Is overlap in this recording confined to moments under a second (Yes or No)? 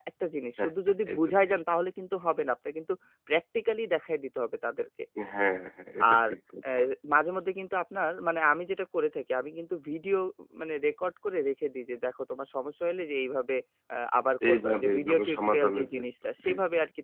No